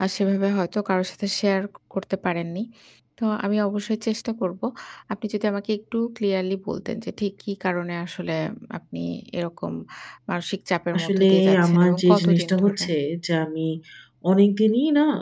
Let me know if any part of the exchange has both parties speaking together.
Yes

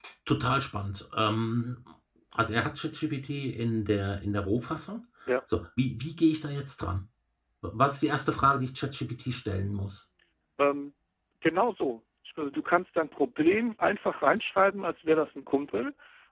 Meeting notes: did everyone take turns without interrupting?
Yes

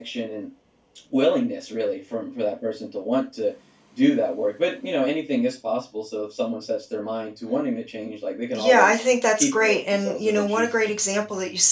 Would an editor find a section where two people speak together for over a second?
Yes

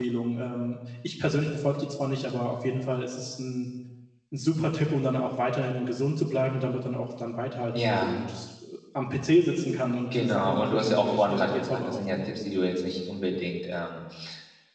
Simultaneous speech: Yes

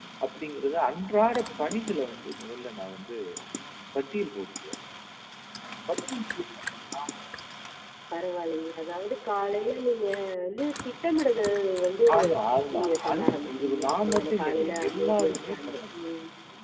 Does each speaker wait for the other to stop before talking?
No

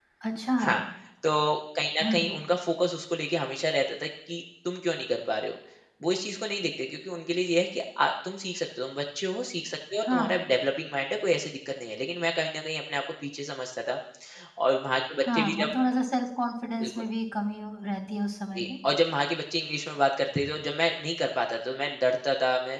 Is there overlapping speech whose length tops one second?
No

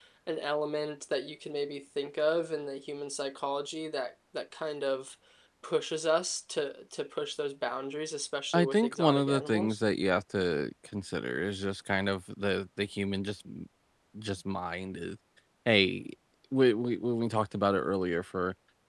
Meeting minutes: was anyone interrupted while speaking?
Yes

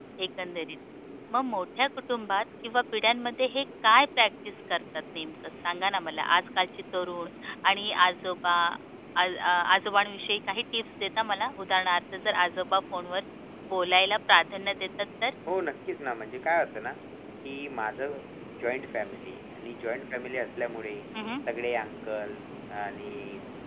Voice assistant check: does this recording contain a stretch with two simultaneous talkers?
No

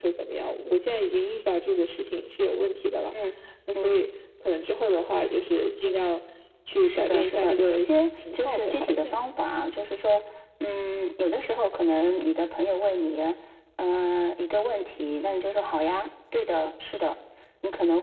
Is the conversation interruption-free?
No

